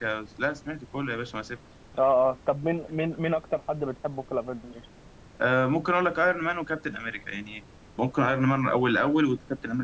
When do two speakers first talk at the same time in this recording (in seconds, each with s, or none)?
none